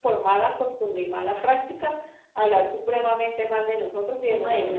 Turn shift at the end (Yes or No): Yes